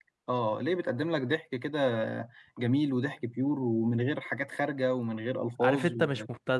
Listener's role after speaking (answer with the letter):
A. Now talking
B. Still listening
A